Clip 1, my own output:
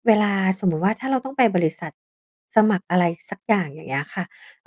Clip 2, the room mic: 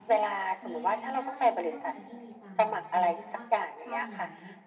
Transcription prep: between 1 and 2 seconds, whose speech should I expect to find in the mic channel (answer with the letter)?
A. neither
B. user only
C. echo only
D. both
D